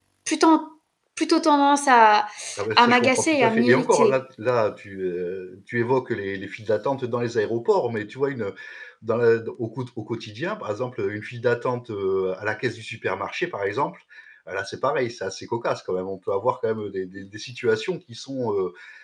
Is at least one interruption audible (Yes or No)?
Yes